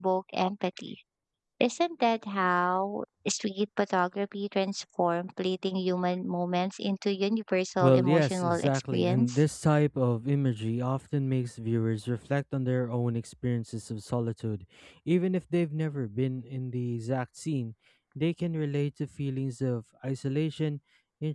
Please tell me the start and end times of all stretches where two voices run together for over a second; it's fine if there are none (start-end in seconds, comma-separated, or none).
7.8-9.4